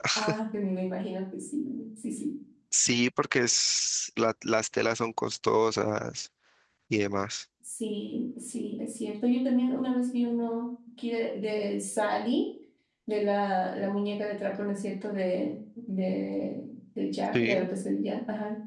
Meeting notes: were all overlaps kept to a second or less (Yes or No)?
Yes